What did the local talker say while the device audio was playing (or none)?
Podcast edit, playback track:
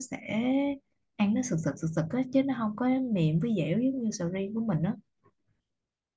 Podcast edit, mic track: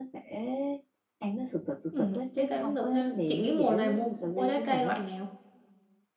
Ừ, trái cây cũng được ha. Chị nghĩ mùa này mua mua trái cây loại nào?